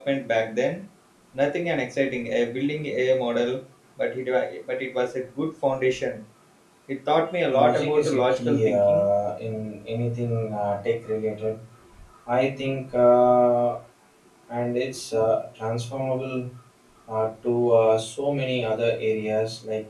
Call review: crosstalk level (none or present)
present